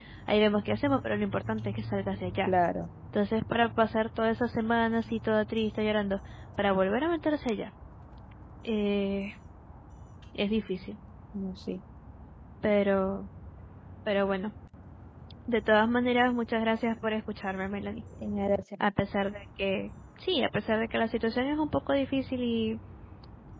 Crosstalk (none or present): none